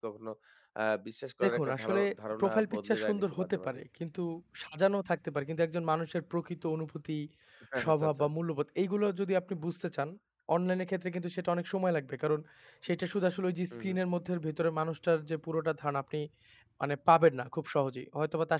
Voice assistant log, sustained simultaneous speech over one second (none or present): present